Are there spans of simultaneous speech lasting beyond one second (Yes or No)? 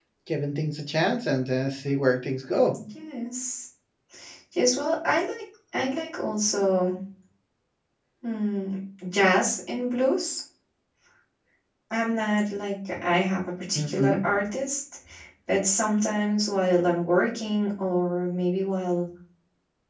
No